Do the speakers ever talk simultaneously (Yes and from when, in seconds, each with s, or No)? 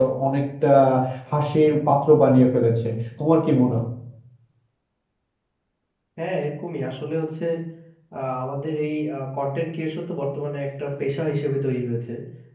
No